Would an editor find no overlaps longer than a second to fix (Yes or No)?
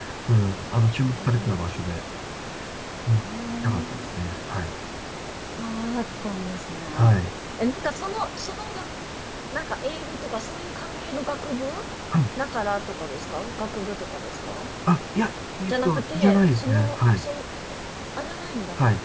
No